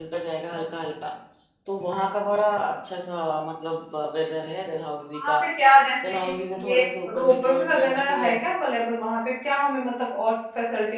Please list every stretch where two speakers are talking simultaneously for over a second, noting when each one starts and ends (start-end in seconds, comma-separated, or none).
7.2-8.4